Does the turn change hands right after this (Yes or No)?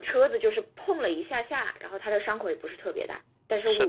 Yes